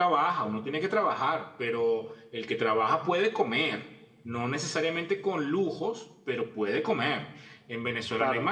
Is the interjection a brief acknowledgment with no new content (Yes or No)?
Yes